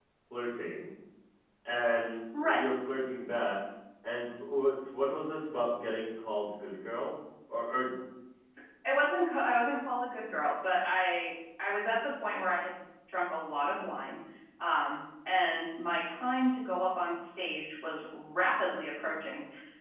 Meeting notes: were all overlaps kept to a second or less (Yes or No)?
Yes